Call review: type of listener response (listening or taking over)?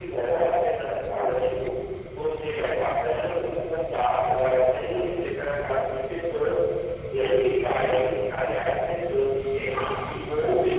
listening